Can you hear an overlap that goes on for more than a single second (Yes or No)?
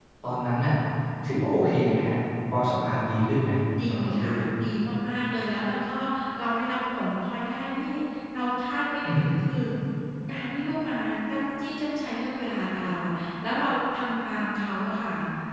No